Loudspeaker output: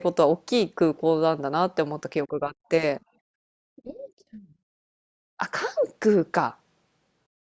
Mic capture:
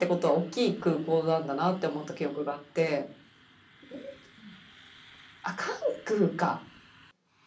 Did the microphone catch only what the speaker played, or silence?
Yes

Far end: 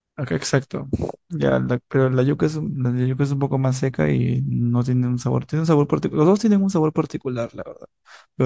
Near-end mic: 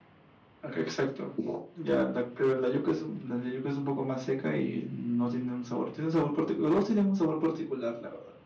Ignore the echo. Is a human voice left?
No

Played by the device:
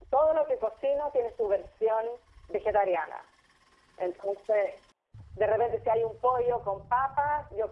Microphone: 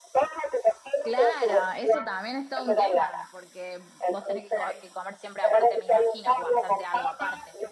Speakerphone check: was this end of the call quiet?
No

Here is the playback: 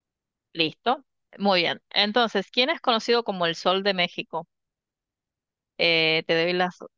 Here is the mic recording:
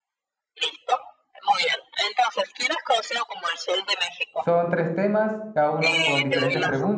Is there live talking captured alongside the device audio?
Yes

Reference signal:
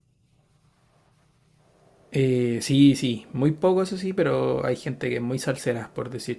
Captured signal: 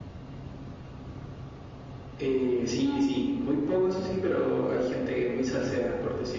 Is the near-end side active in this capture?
No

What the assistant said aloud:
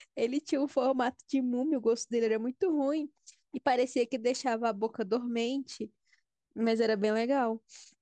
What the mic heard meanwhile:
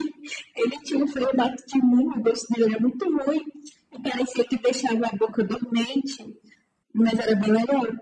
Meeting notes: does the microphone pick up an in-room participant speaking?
No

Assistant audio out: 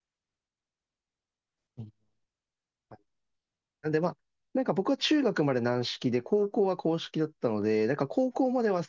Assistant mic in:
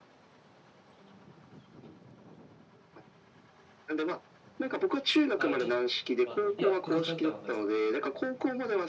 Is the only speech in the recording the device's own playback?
No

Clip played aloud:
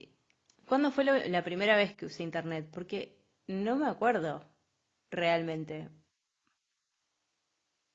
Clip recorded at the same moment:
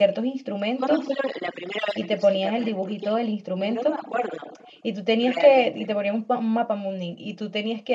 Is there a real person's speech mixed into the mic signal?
Yes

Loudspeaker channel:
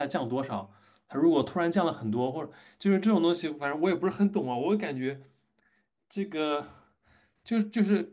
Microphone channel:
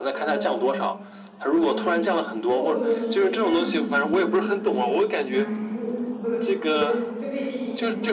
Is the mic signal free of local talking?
No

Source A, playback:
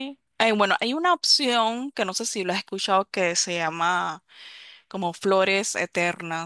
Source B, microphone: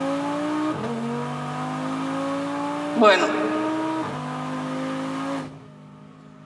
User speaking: Yes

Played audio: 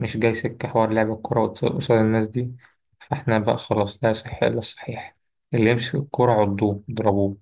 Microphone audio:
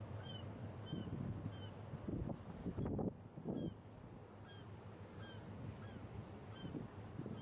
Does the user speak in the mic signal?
No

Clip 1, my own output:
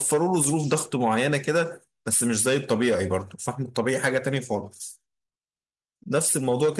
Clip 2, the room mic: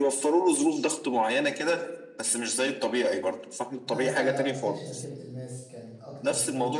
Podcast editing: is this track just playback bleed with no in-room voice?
No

